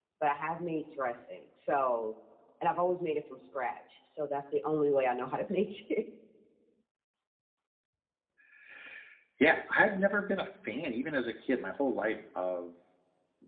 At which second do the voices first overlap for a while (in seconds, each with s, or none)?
none